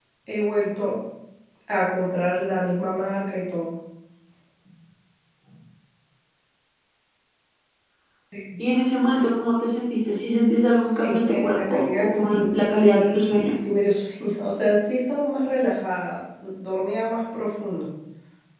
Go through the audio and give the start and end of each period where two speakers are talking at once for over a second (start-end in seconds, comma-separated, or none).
10.9-13.5